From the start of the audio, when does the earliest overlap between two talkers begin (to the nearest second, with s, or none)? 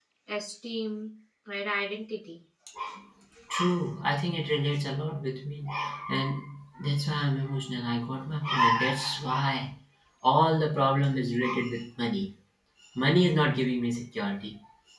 none